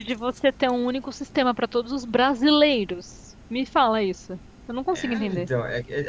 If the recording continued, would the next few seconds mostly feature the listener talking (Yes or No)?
Yes